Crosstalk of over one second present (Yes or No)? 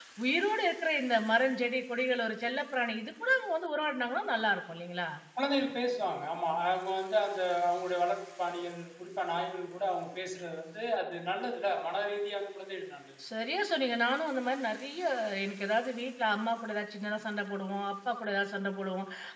No